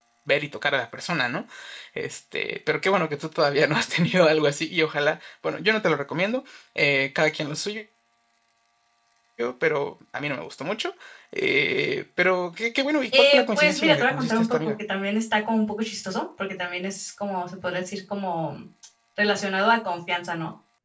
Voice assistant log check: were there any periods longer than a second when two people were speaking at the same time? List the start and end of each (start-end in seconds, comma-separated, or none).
13.2-14.7